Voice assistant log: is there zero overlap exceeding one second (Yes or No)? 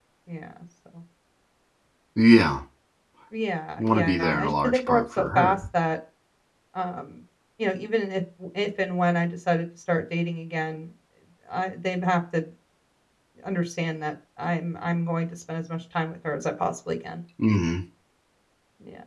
No